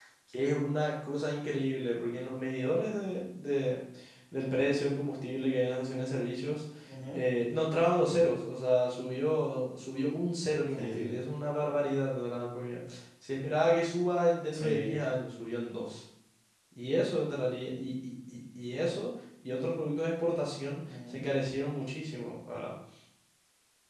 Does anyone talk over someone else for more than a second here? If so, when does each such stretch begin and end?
none

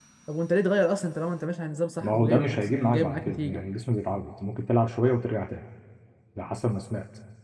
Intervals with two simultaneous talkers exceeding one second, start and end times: 2.0-3.6

